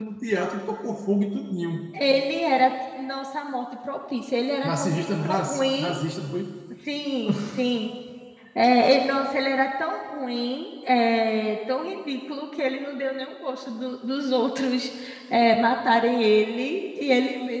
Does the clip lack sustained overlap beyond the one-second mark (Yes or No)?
No